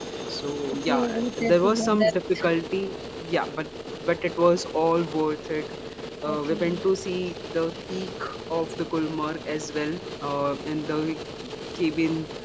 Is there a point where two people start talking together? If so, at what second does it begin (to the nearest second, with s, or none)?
1 s